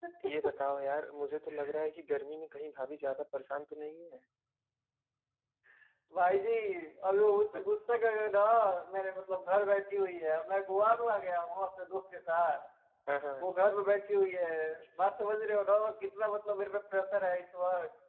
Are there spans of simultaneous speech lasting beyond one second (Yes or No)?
No